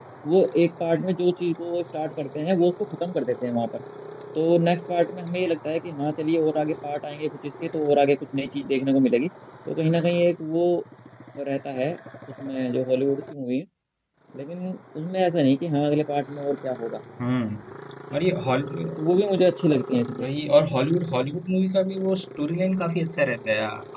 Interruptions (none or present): none